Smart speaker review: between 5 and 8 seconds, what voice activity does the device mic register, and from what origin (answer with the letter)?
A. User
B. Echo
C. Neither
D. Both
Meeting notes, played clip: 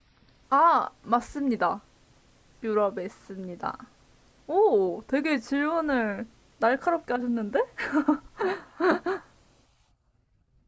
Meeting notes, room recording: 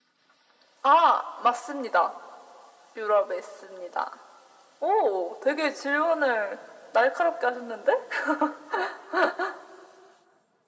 B